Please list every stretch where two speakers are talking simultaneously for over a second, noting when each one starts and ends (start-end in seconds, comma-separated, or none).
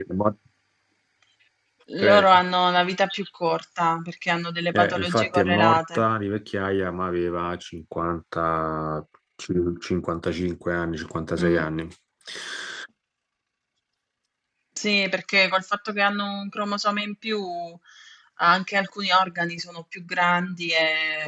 4.7-6.0